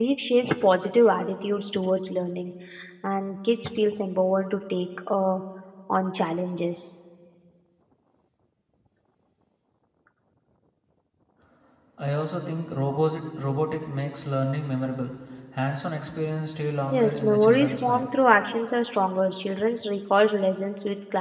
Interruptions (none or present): present